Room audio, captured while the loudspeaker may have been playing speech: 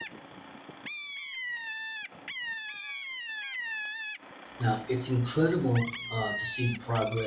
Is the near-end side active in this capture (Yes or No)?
Yes